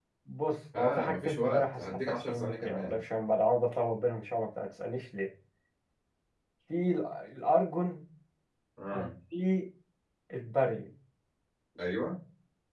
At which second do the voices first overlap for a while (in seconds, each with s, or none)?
0.8 s